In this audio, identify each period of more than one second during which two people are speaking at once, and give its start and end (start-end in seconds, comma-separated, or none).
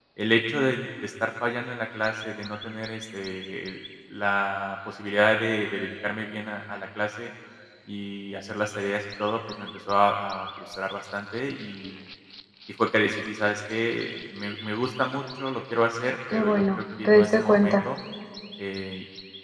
16.3-17.9